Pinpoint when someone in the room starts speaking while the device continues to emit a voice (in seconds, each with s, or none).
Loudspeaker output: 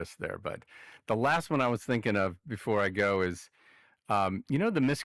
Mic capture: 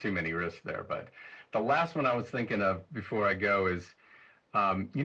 none